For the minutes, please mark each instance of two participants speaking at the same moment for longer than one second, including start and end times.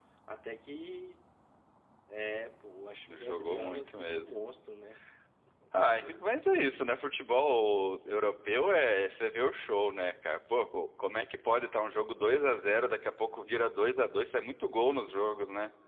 3.1-4.3

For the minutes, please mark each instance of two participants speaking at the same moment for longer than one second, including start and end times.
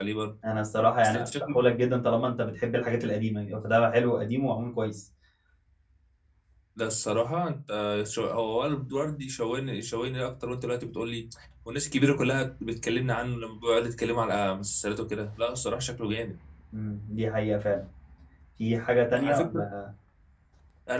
none

